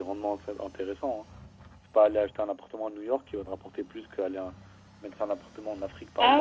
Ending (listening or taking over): taking over